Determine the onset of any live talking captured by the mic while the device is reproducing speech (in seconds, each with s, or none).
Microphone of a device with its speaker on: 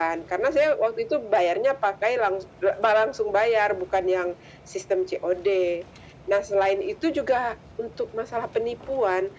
none